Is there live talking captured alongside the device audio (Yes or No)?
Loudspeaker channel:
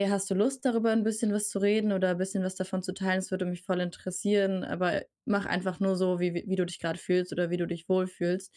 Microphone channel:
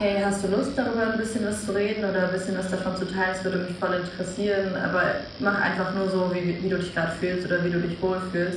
No